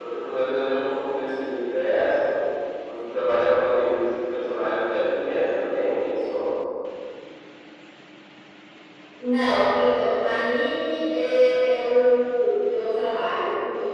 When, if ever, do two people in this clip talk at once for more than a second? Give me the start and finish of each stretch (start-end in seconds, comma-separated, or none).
none